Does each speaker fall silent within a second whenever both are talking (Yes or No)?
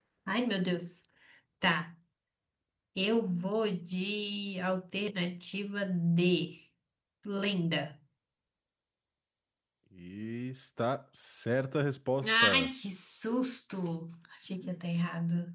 Yes